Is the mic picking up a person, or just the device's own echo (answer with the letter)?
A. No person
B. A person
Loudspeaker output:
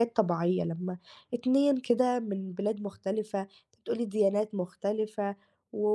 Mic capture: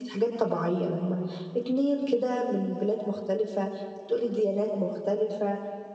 A